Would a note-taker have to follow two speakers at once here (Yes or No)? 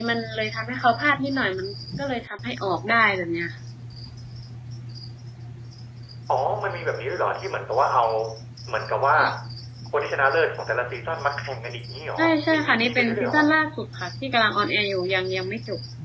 Yes